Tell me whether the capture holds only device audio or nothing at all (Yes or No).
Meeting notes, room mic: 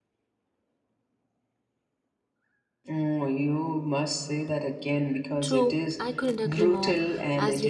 No